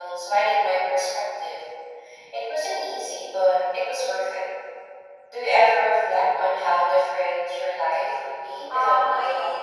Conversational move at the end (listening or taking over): taking over